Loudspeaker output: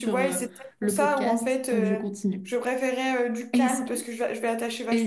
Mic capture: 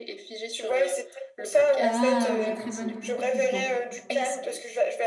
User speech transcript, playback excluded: Ah oui, très bonne très bon choix.

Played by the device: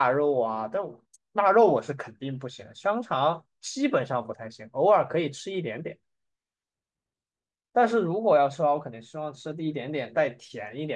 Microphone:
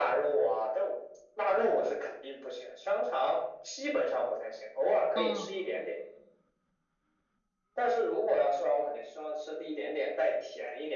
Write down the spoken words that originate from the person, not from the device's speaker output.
嗯

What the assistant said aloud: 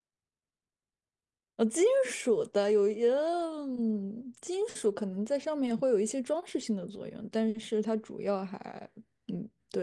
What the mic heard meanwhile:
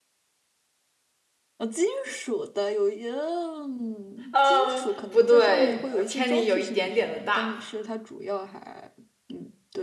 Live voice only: 嗯，不对，呃偏离有一点点的大。

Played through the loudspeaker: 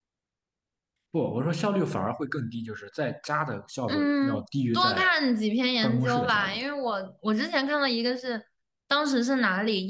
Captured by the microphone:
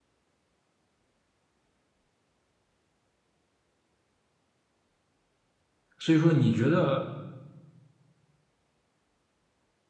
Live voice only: 所以说你觉得

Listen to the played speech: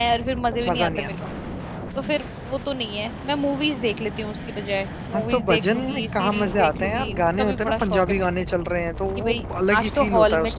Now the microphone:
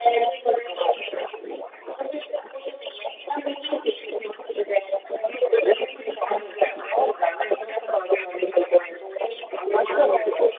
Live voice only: none

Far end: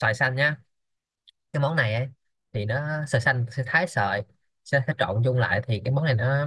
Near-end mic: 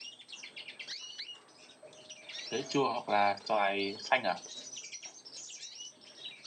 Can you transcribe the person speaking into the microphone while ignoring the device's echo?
khế chua hoặc là xoài xanh à?

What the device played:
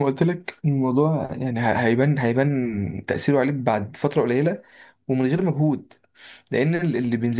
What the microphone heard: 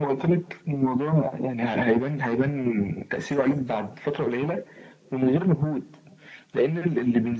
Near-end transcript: none

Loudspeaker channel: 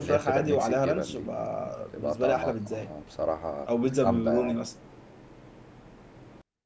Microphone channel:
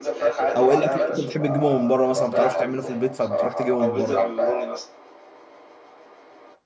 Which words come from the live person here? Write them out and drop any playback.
او ايه الاكل اللي انت بتحب تجيبه من بره مثلا ما بتعرفش تعمله في البيت فبتروح تجيبه من بره

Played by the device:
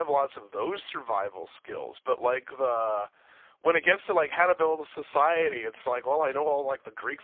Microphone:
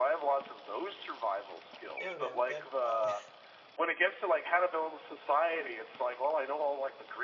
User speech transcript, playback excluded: I don't know that uh

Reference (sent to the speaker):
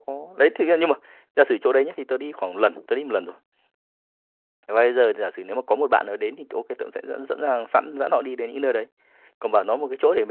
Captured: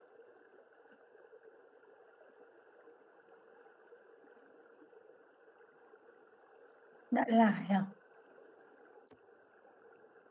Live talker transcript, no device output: Đại Lải à

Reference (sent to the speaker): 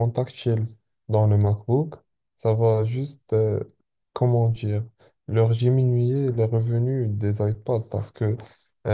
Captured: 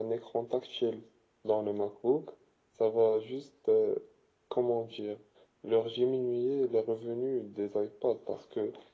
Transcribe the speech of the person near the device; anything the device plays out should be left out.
none

